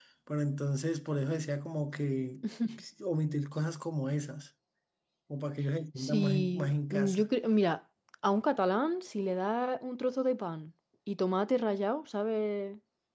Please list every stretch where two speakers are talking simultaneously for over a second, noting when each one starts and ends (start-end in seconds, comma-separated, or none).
6.0-7.3